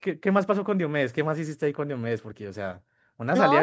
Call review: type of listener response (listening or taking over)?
taking over